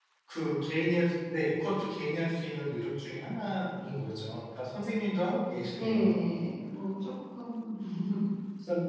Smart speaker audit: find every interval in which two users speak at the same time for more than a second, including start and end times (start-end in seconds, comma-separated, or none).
none